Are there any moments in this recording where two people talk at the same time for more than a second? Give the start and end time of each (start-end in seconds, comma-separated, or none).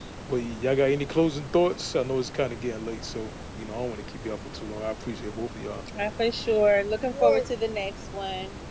none